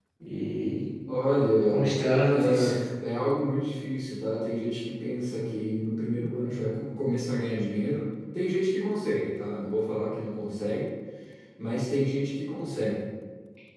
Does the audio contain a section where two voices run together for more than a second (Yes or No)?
No